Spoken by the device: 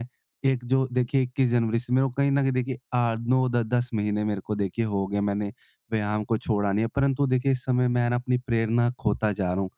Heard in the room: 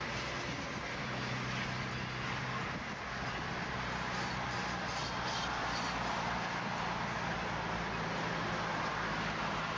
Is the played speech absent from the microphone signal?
Yes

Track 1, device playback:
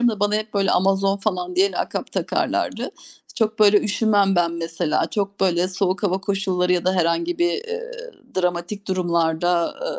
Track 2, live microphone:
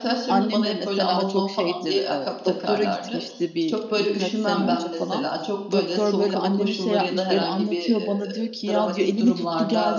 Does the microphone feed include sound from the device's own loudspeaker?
Yes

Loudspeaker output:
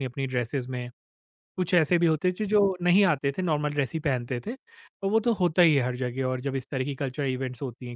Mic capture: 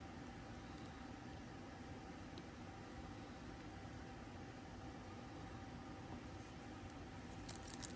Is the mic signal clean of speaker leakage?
Yes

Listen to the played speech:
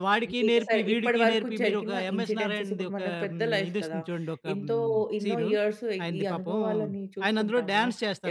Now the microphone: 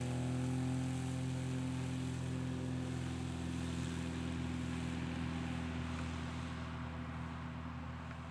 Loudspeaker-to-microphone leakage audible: No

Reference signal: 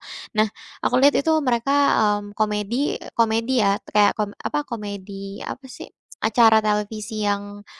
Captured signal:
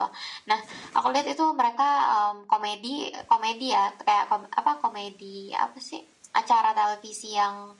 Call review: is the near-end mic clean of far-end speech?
No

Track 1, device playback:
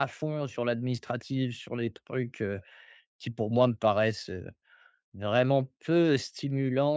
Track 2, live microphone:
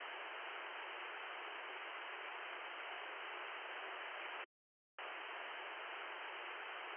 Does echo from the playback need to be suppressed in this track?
No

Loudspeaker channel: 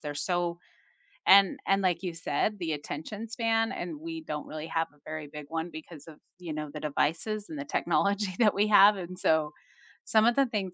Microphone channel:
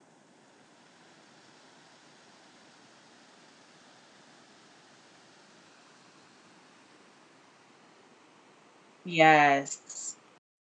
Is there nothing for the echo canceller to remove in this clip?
Yes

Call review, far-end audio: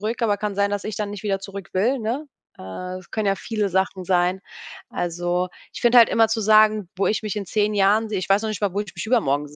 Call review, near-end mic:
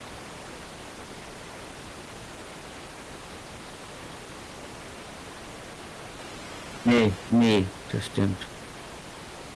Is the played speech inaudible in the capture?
Yes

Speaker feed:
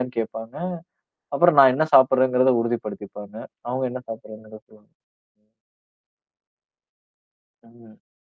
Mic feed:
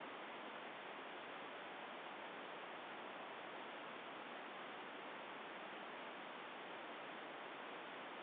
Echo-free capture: Yes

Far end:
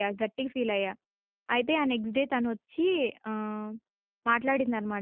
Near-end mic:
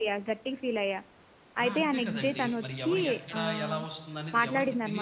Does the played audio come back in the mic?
Yes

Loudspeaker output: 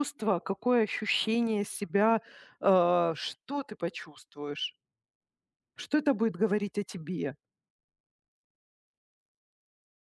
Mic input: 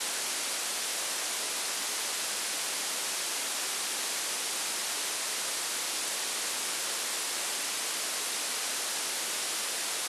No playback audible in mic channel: Yes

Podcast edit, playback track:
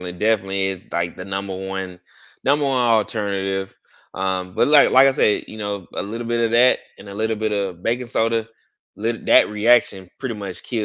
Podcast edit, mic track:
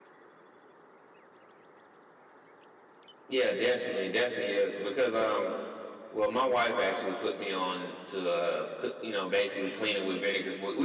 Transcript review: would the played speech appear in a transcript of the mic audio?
No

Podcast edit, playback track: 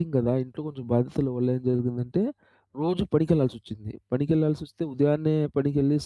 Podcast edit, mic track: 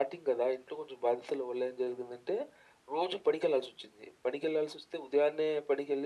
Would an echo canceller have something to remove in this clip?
Yes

